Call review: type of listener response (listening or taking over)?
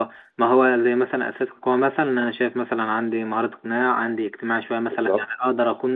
listening